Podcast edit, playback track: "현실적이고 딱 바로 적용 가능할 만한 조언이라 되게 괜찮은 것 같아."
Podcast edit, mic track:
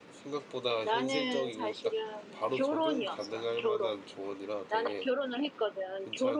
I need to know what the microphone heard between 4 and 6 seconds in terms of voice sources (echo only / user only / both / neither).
both